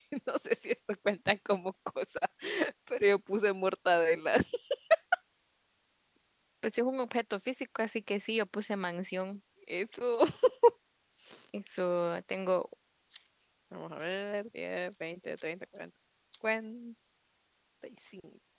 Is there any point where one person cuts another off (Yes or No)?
No